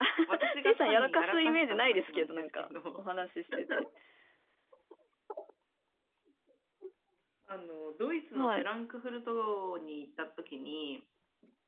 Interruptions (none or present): present